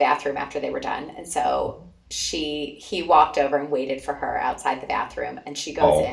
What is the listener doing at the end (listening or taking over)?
listening